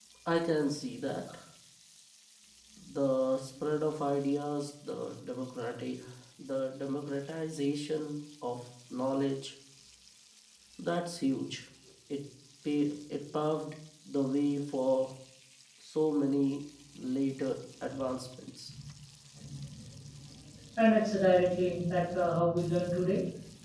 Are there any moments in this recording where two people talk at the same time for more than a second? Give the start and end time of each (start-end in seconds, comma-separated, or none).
none